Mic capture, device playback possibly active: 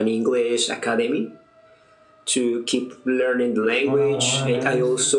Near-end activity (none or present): present